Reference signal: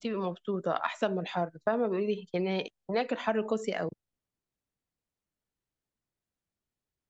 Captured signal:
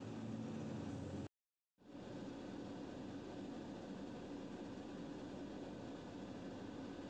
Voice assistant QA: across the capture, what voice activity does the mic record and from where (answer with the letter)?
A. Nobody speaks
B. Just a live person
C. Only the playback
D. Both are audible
A